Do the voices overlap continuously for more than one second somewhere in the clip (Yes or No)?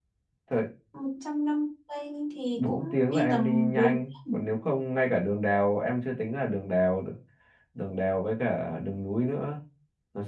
Yes